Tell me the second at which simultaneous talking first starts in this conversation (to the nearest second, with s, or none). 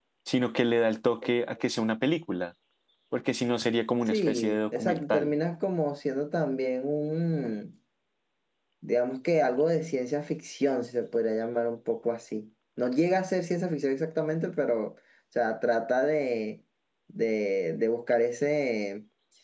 4 s